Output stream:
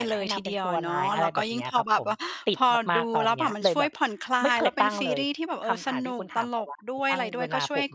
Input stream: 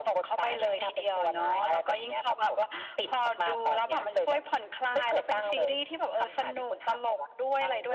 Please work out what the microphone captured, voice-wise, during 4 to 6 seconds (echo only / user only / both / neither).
echo only